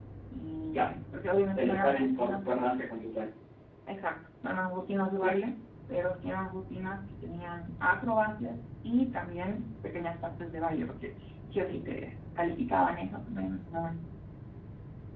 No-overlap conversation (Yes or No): No